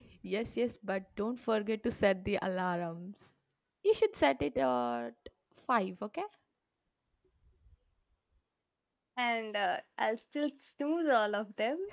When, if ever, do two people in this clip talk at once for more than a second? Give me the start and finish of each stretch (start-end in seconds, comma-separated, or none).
none